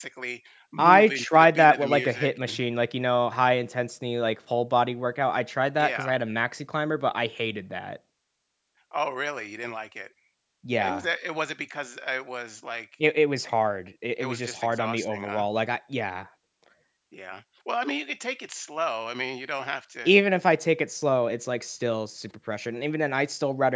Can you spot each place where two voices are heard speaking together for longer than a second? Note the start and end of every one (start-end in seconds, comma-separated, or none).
0.8-2.3, 14.2-15.4